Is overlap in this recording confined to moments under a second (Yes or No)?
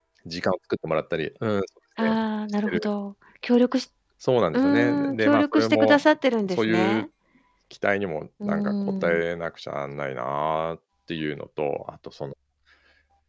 No